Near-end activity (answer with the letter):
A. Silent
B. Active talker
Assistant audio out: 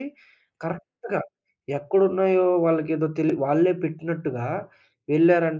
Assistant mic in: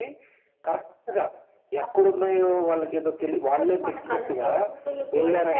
B